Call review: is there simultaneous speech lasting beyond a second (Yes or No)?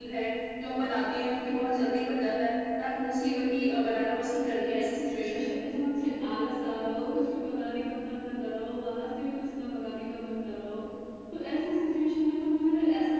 Yes